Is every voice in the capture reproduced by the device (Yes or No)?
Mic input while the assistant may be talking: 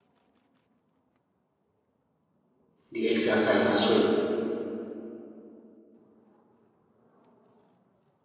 No